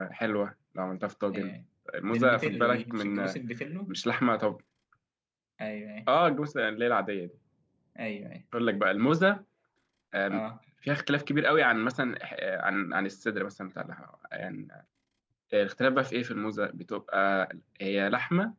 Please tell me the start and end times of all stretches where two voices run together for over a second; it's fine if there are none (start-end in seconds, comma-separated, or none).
2.1-3.4